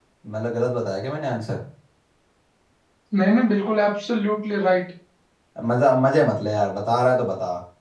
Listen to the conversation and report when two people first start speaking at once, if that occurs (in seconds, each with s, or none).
none